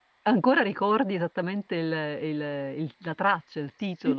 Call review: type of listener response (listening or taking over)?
taking over